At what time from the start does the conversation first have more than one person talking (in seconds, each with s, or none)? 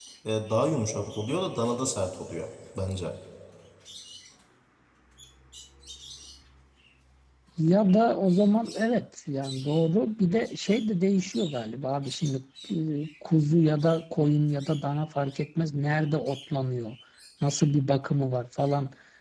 none